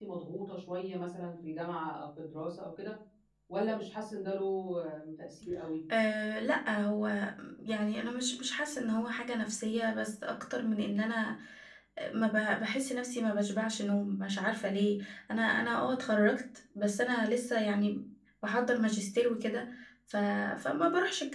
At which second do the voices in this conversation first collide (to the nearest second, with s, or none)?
none